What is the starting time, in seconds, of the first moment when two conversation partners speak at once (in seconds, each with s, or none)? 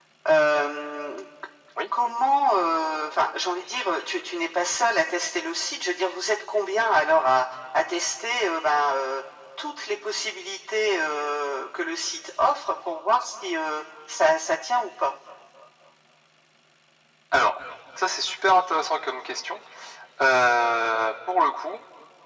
none